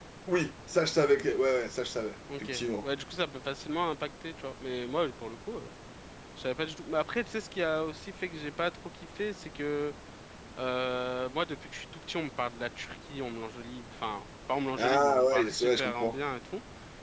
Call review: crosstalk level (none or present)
present